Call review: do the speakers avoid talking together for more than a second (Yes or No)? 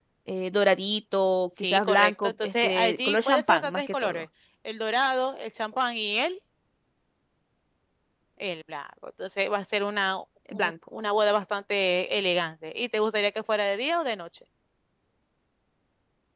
No